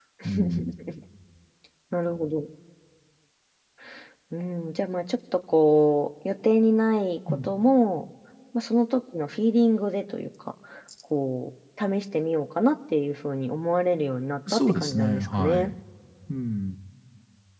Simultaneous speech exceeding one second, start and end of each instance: 14.5-15.7

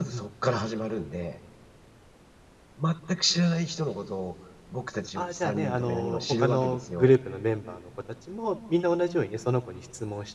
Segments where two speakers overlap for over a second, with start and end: 5.2-7.1

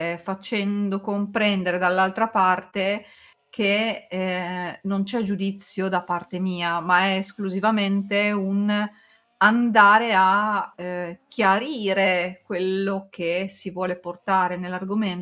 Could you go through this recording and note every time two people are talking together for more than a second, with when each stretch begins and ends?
none

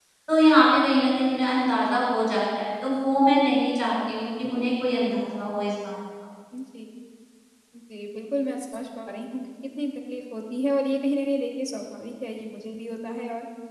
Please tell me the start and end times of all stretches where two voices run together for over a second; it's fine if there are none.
none

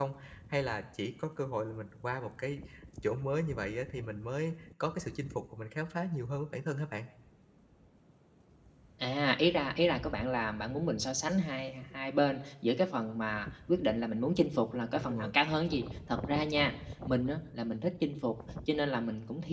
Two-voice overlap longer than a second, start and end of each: none

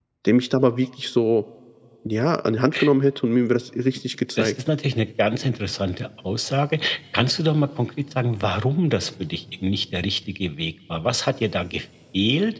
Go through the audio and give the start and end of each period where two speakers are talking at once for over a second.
none

